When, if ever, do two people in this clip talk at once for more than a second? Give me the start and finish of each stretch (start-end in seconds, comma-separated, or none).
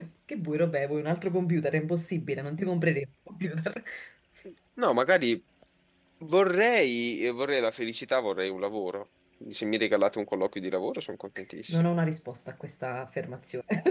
none